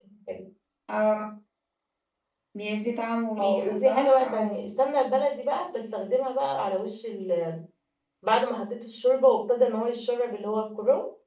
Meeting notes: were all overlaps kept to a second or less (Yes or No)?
No